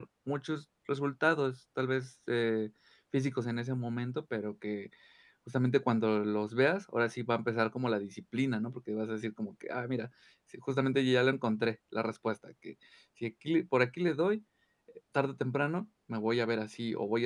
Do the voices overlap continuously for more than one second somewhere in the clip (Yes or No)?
No